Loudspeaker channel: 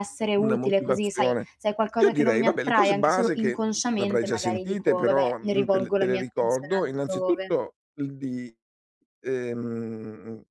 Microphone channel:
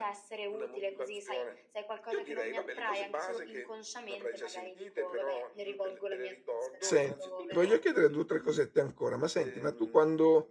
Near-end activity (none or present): present